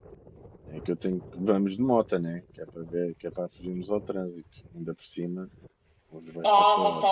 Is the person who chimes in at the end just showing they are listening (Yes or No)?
No